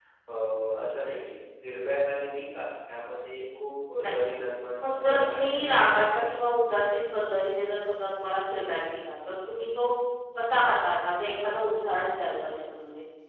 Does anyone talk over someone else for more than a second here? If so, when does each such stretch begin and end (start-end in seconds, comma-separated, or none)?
4.8-6.2